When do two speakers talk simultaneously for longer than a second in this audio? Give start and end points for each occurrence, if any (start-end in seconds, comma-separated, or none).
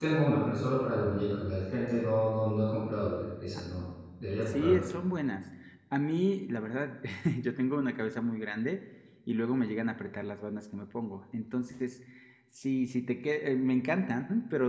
none